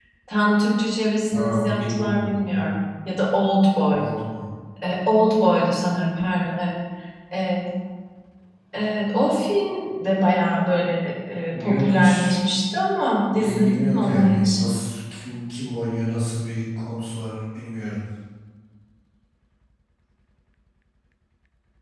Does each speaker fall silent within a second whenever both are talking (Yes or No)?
No